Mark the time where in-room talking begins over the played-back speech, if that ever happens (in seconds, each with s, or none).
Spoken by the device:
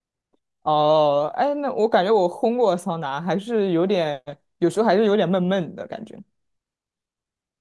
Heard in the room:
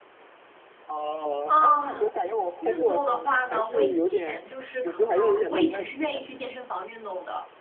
1.4 s